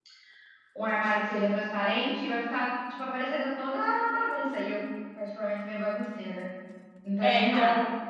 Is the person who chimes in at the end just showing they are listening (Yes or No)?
No